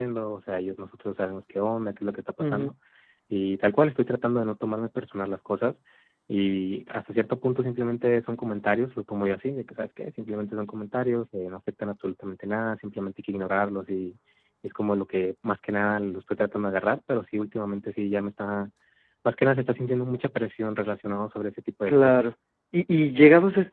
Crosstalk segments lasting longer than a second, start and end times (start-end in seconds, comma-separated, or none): none